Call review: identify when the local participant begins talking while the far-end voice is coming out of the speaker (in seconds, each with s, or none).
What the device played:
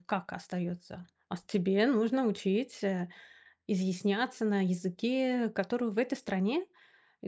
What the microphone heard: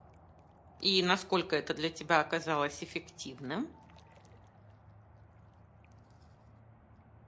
0.8 s